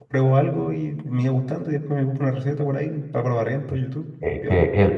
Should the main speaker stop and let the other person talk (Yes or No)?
Yes